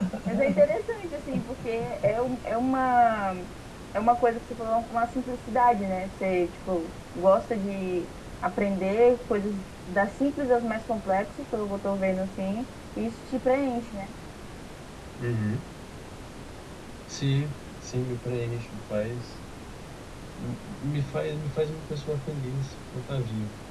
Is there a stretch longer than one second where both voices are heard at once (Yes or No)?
No